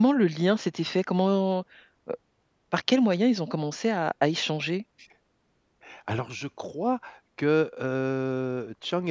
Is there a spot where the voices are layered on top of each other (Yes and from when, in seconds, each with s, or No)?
No